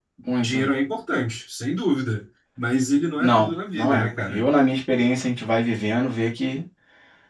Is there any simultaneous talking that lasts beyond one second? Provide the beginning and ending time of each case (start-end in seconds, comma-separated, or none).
3.2-4.4